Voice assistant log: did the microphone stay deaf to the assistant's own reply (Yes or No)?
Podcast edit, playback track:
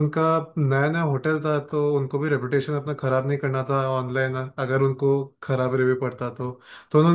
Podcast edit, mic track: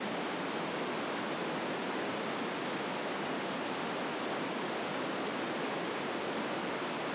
Yes